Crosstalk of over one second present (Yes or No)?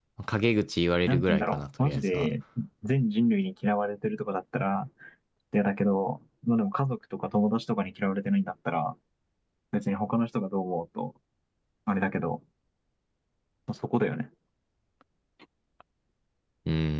Yes